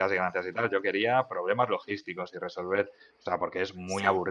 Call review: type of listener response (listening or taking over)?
listening